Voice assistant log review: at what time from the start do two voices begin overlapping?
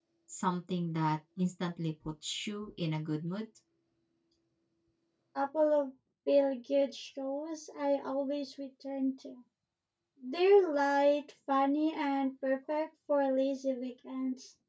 none

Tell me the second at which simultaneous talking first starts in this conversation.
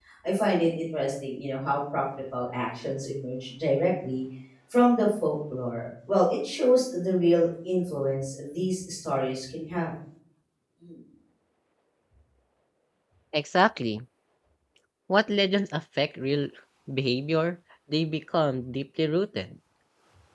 none

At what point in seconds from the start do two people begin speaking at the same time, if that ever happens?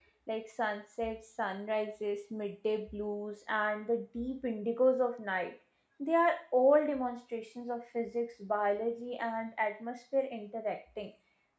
none

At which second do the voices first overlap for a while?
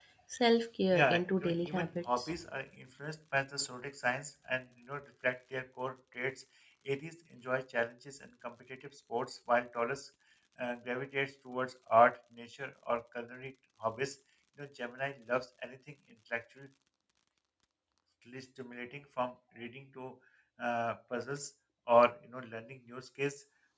0.9 s

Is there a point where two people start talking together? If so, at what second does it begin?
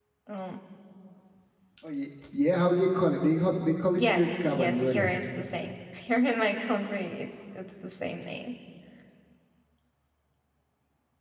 3.9 s

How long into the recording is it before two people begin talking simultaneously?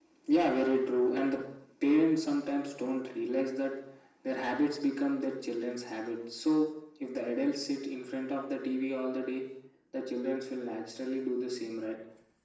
none

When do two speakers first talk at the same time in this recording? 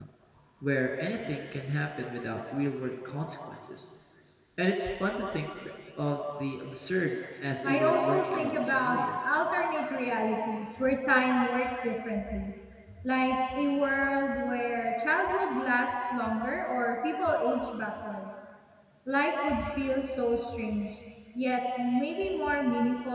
7.6 s

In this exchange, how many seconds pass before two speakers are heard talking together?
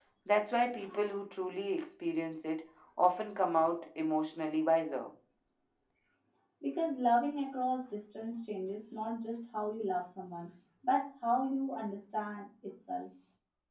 none

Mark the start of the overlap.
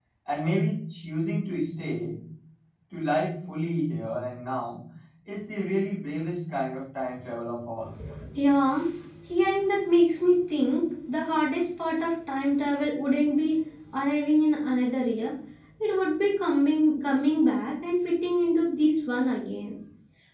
none

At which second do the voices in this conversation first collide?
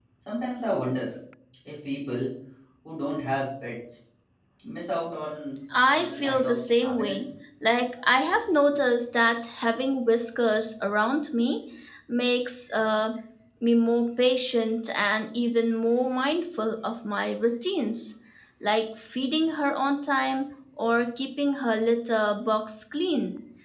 5.7 s

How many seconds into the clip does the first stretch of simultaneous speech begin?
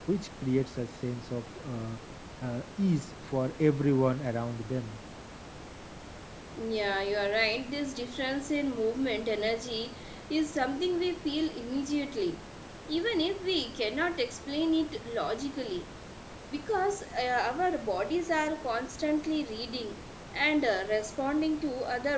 none

